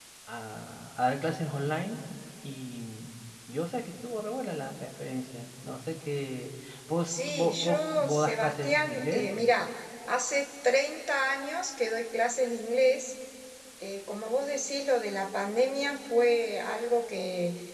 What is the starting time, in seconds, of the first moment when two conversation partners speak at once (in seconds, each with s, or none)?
7.1 s